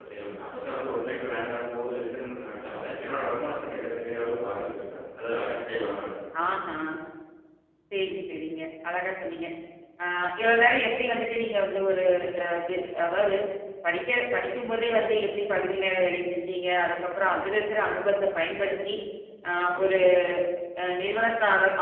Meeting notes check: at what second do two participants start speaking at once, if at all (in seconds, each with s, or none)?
none